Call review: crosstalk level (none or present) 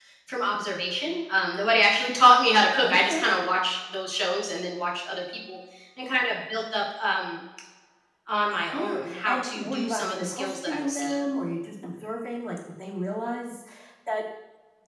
present